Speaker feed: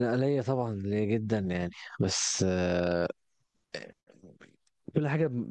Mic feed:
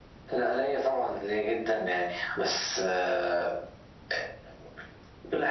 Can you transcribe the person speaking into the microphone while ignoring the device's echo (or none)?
none